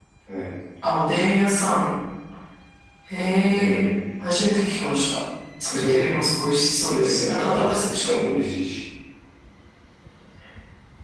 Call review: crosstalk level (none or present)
present